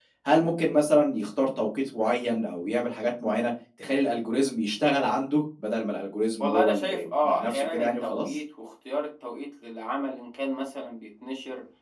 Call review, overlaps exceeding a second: present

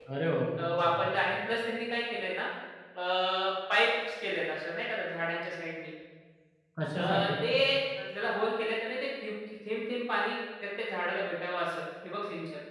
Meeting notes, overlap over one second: none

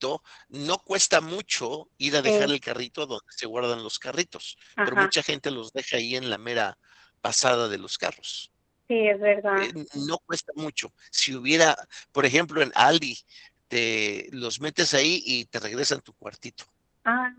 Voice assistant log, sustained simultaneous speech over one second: none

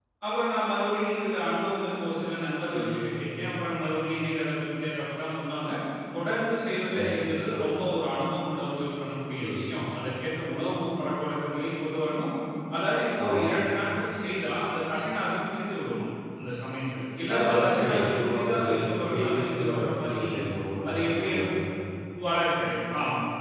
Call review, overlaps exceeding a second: present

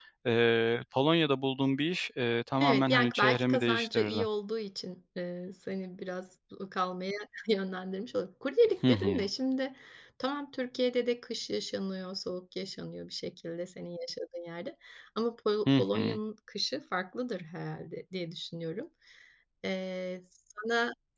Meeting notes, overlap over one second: present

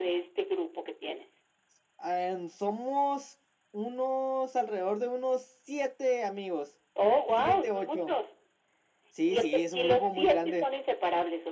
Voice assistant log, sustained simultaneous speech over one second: present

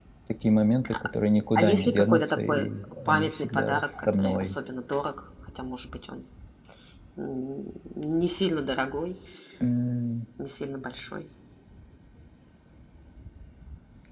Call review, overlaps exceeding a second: present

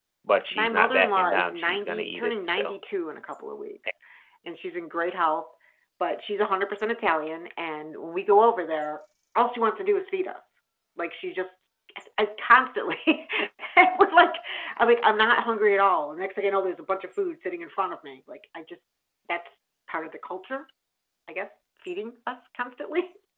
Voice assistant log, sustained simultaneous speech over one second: present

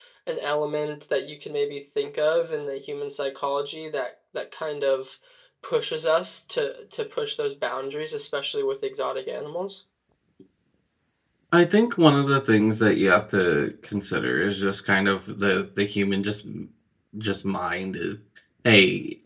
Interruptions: none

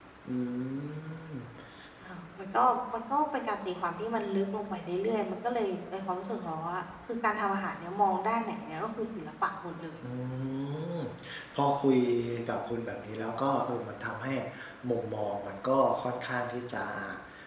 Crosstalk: none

